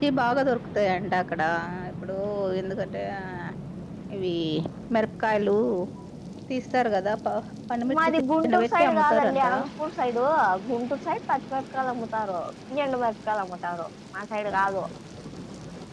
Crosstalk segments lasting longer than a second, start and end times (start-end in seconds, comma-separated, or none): 7.9-9.4